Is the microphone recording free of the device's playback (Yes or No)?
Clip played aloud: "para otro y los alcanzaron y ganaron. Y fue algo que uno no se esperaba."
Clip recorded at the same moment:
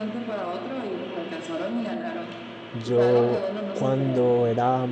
No